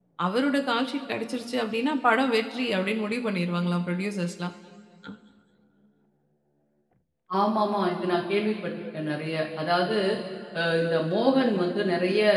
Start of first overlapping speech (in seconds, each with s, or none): none